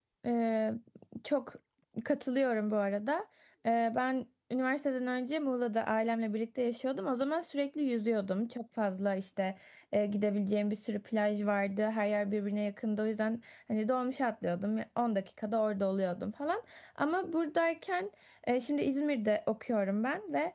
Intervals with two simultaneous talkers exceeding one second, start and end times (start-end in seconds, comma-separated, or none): none